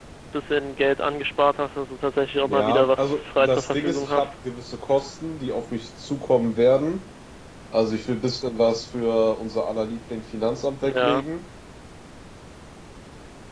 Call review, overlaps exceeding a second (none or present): present